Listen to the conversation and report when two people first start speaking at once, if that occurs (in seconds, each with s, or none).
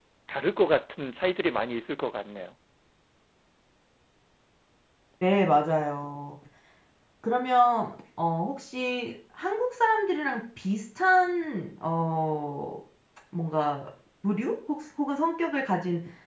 none